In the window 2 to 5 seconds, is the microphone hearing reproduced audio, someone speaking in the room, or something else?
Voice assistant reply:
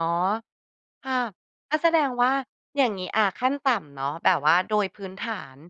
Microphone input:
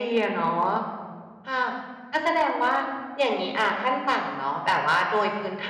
echo only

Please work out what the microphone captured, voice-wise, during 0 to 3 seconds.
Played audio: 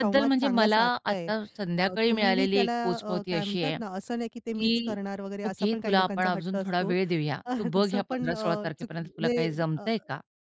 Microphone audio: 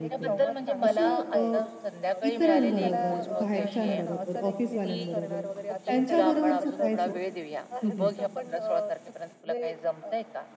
both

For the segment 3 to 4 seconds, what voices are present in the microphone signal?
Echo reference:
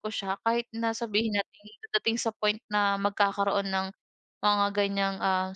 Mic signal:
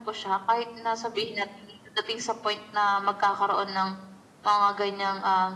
echo only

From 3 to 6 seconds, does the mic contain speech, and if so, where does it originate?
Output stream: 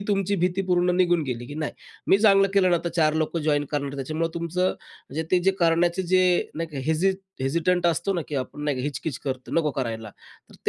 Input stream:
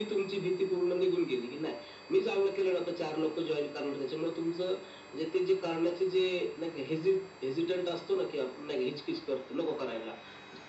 echo only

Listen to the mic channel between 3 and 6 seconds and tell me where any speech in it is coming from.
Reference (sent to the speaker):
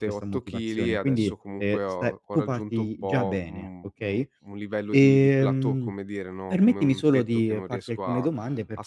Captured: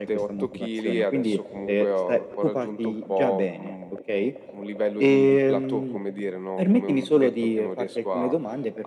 echo only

